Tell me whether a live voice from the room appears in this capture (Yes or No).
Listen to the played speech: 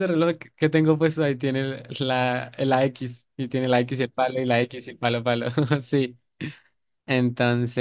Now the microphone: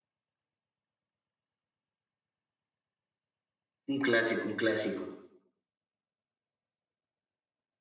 Yes